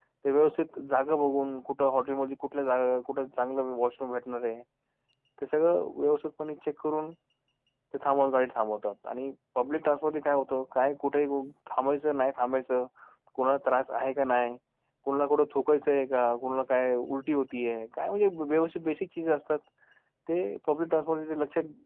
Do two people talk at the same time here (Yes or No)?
No